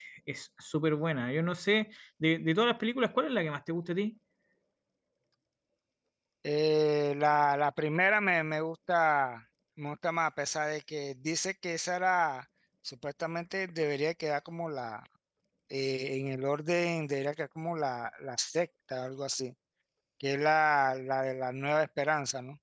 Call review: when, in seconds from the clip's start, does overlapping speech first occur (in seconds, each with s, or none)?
none